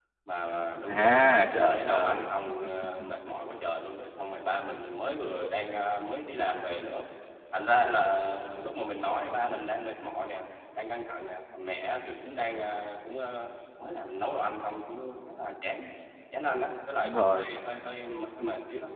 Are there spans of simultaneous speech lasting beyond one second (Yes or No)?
Yes